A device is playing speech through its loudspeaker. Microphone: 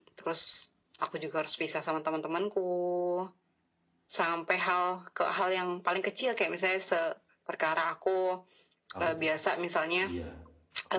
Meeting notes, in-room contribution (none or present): present